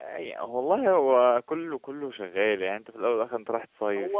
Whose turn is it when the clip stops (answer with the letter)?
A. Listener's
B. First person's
A